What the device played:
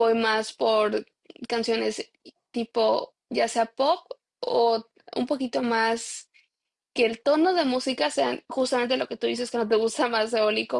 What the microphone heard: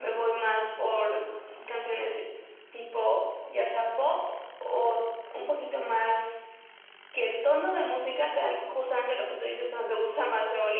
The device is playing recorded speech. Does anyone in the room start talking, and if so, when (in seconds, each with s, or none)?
none